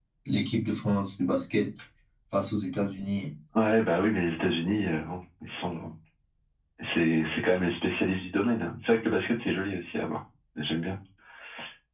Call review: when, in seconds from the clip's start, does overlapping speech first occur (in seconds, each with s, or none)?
none